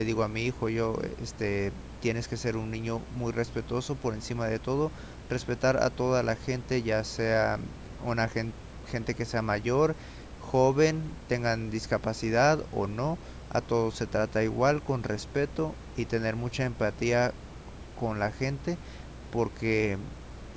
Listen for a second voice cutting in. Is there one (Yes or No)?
No